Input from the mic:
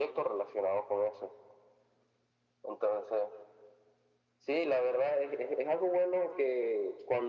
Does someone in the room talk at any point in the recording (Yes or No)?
No